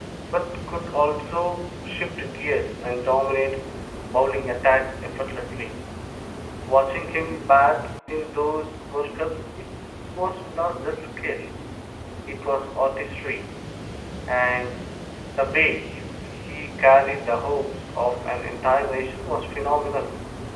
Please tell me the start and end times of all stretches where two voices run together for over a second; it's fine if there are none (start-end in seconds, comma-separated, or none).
none